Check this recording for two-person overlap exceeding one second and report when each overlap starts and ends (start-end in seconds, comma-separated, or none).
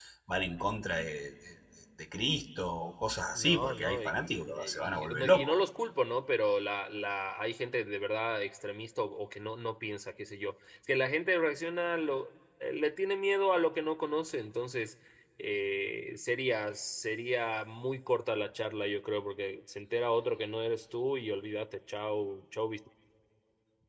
3.3-5.6